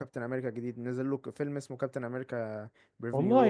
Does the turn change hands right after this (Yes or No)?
Yes